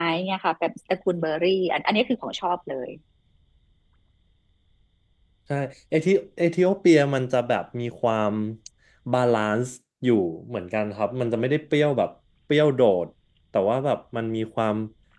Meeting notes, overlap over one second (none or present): none